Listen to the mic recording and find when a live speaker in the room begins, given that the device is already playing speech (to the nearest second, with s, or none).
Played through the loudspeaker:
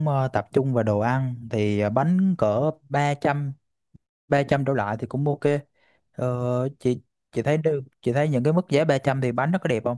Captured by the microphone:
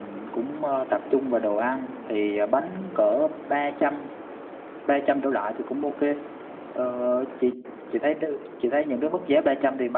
none